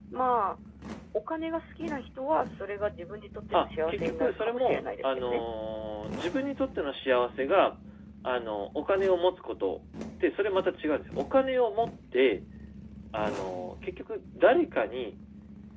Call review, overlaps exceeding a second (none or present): present